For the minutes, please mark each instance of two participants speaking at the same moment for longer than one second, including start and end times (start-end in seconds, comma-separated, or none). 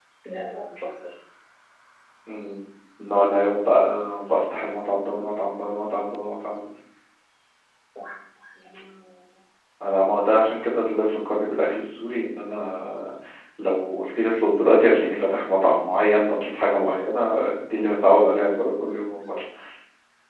none